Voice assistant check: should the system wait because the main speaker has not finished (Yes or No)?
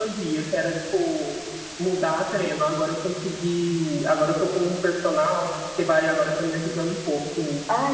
No